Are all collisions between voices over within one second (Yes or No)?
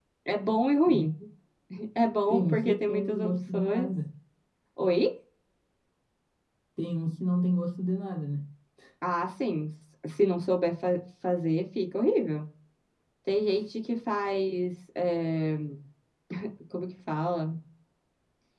No